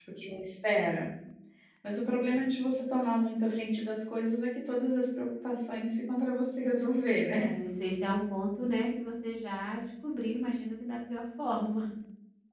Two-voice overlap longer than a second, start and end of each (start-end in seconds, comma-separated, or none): none